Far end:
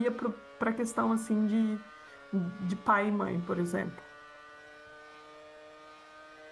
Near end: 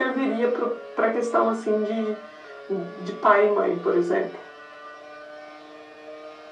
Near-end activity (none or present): none